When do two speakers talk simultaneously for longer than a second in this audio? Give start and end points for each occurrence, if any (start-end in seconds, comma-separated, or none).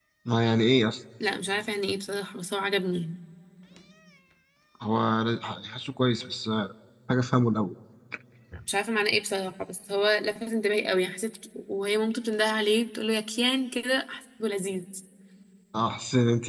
none